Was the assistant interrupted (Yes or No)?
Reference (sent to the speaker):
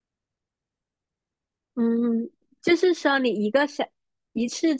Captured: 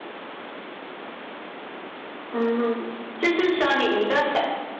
No